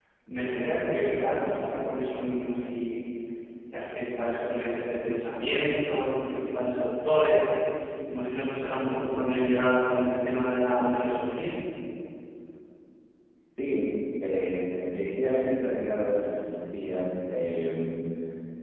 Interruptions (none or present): none